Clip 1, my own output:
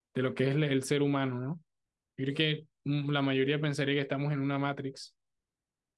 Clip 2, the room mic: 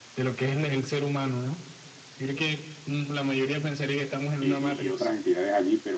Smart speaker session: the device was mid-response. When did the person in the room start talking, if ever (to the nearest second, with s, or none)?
4 s